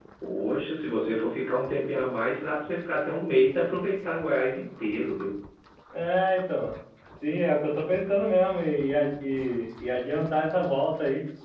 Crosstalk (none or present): none